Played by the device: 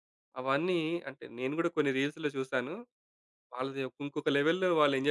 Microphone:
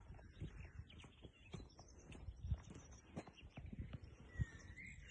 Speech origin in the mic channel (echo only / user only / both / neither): neither